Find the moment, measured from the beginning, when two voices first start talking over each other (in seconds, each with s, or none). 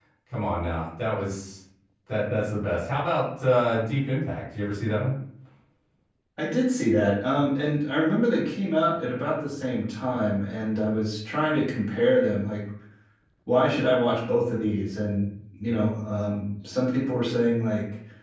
none